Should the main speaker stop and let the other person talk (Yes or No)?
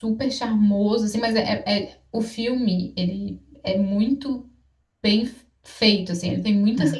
No